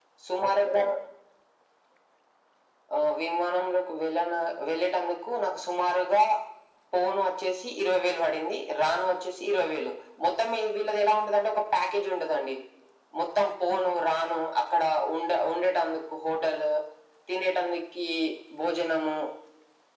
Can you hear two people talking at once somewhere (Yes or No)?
No